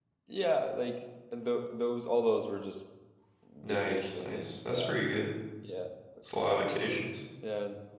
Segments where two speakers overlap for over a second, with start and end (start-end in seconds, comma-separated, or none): 3.6-4.9